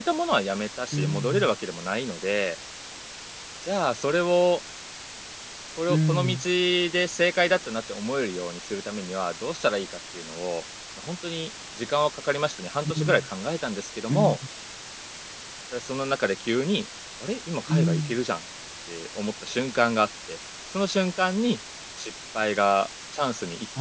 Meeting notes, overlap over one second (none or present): none